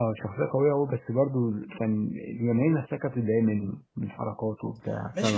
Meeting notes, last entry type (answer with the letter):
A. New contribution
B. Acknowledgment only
A